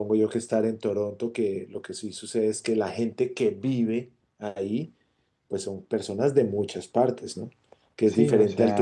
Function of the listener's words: taking over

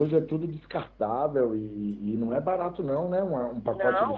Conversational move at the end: taking over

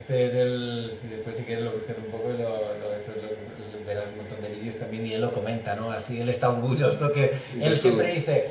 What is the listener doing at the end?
listening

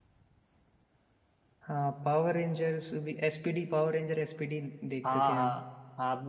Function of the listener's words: taking over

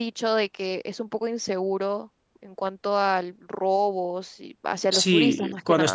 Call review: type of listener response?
taking over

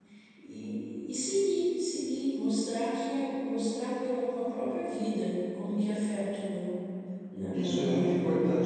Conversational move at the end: taking over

